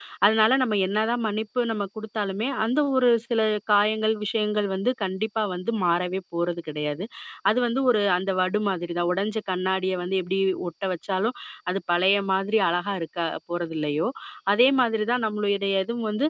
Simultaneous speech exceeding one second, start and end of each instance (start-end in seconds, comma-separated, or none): none